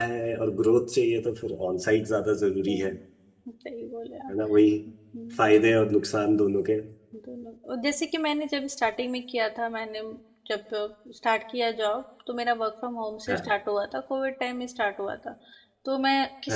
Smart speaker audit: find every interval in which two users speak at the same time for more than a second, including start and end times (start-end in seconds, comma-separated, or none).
none